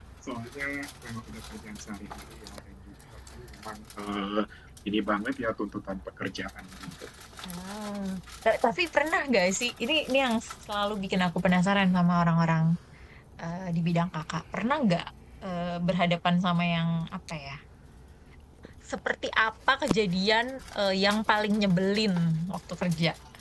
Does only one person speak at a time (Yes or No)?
Yes